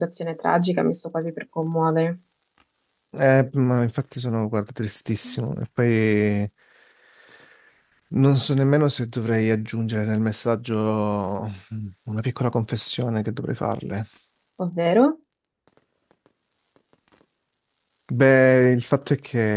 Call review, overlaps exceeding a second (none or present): none